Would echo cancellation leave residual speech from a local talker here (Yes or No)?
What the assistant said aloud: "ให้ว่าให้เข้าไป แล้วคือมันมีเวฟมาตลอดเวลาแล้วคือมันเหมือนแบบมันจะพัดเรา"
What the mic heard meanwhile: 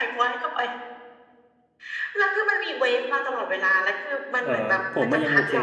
Yes